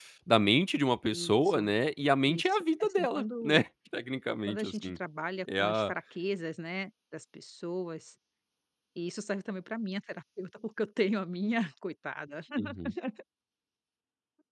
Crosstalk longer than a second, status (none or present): present